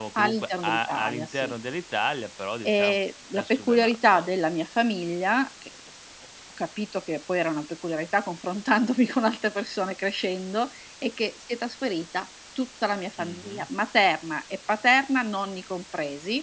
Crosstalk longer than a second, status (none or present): present